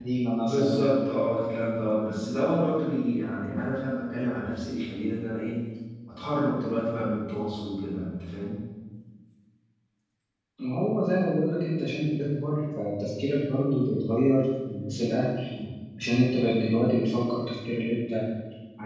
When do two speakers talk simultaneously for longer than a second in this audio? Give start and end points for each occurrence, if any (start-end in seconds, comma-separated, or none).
none